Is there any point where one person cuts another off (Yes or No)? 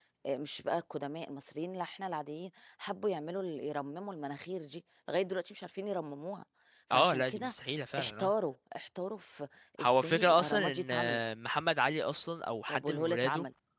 Yes